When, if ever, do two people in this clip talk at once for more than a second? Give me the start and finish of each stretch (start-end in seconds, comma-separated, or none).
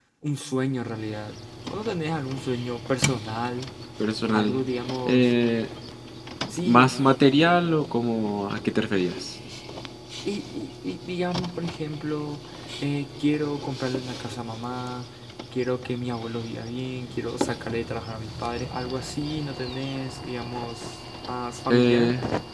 none